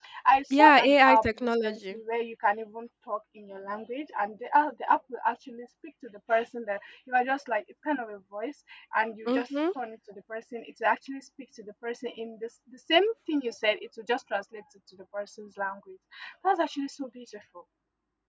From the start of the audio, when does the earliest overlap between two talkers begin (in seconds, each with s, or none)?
0.6 s